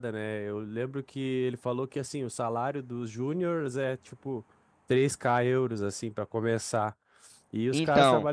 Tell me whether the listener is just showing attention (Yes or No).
Yes